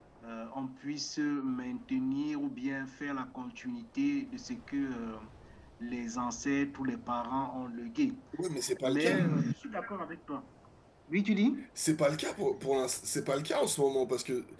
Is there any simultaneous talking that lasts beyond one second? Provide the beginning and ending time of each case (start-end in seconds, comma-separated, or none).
none